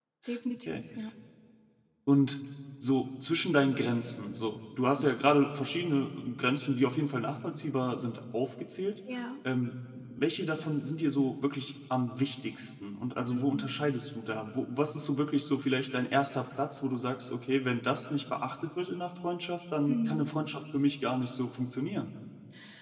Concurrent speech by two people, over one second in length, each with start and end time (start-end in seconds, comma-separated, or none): none